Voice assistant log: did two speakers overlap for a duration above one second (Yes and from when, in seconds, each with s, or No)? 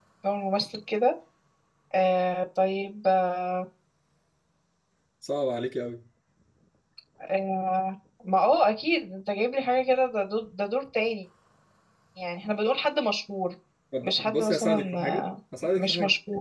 Yes, from 14.0 s